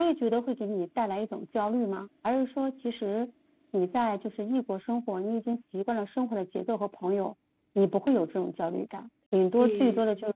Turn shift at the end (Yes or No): No